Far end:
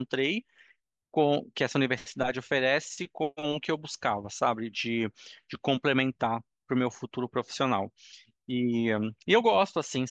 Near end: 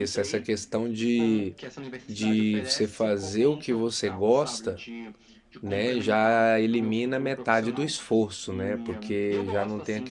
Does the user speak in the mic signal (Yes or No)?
Yes